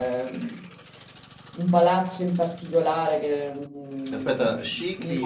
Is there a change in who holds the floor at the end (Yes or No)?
Yes